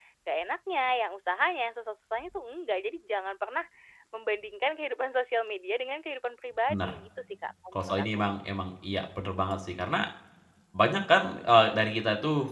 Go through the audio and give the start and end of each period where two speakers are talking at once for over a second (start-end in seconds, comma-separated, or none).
none